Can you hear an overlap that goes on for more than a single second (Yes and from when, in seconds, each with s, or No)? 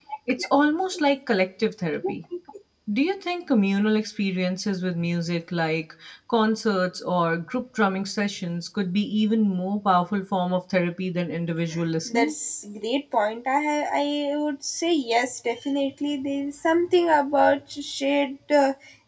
No